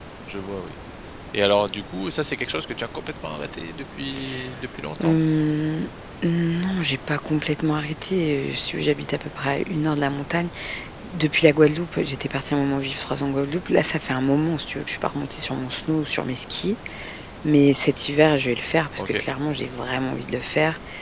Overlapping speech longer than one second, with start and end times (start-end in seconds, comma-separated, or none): none